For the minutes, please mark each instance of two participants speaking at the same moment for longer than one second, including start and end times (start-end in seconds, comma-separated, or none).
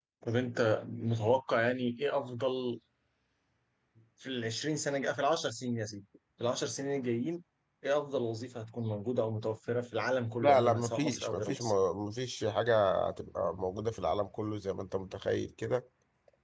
10.4-11.6